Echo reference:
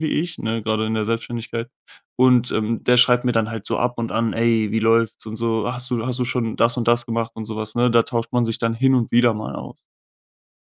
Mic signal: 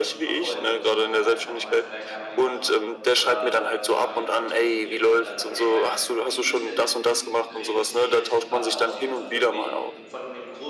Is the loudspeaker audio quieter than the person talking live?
No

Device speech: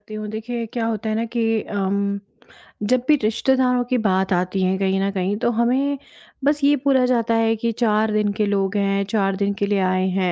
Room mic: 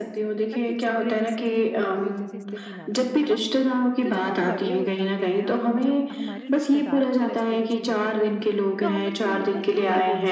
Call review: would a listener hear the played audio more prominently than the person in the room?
Yes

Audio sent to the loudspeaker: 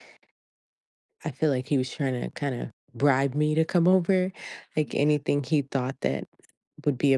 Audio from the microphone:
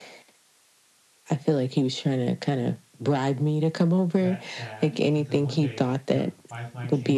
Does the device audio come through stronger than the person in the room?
Yes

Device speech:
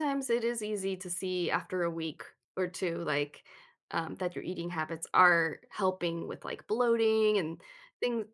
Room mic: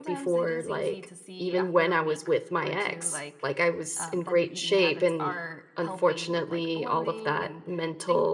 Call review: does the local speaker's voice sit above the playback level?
Yes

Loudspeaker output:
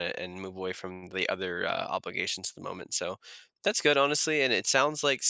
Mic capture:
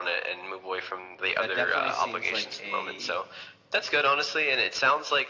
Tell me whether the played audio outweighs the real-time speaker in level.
Yes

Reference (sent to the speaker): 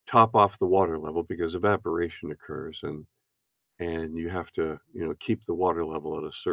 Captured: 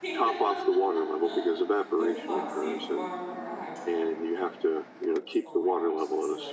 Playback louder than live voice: Yes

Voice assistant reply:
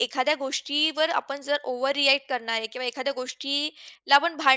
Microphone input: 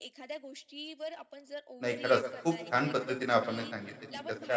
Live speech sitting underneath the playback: No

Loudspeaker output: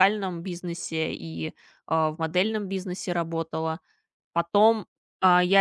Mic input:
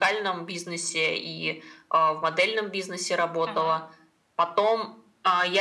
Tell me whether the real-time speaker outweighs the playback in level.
No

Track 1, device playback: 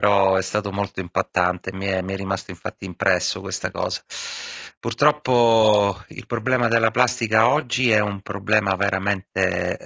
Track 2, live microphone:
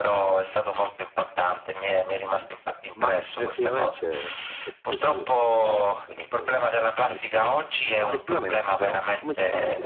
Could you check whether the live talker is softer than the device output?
Yes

